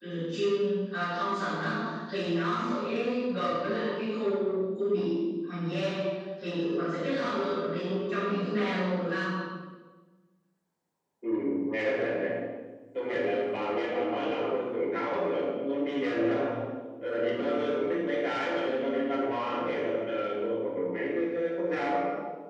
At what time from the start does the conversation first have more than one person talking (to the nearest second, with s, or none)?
none